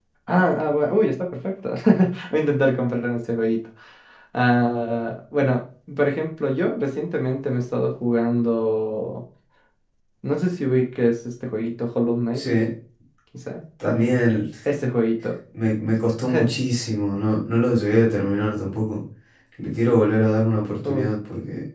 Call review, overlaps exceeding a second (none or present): none